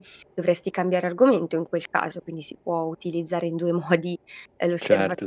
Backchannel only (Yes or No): No